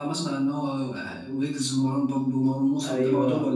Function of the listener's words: taking over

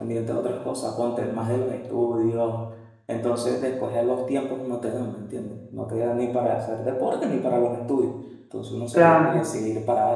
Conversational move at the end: listening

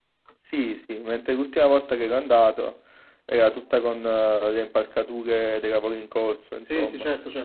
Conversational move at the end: taking over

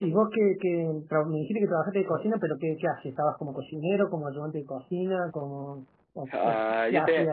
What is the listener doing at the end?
taking over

